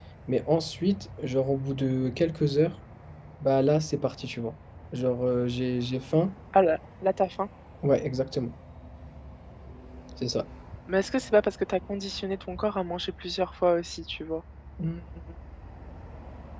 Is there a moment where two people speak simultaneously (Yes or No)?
No